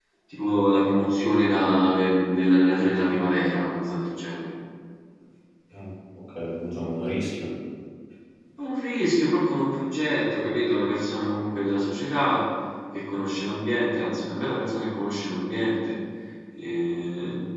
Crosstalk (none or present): none